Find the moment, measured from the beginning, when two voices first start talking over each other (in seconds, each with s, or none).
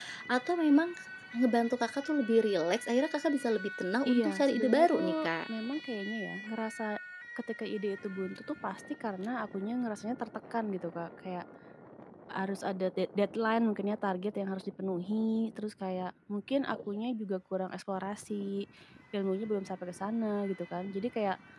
4.0 s